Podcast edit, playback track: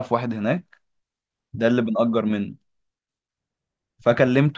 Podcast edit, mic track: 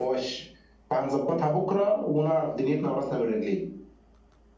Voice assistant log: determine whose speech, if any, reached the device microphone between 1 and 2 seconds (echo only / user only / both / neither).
user only